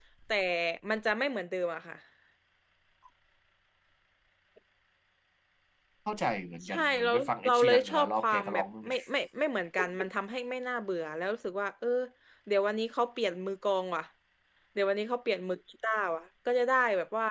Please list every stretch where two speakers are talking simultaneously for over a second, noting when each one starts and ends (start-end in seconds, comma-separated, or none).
6.7-9.0